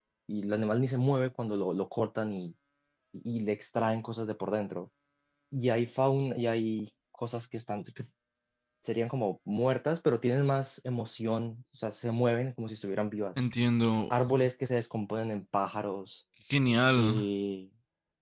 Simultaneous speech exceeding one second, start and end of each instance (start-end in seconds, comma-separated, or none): none